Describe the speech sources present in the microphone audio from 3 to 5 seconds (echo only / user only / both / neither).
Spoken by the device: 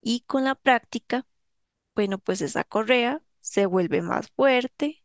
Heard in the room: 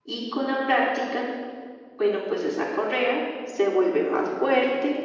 echo only